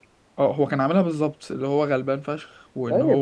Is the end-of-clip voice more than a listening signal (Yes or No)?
Yes